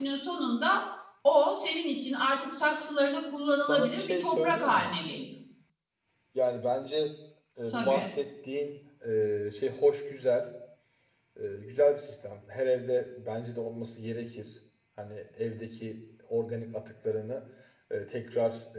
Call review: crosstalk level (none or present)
present